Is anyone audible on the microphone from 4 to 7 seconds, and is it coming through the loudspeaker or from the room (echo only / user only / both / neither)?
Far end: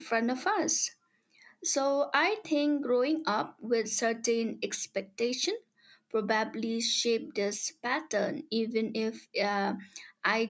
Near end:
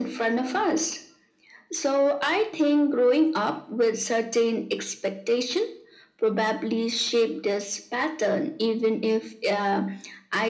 echo only